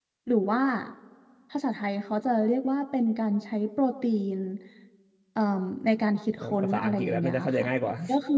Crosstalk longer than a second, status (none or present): present